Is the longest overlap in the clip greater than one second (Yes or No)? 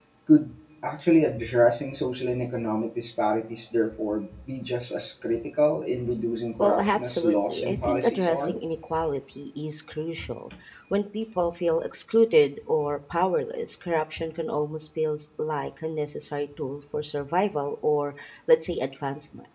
Yes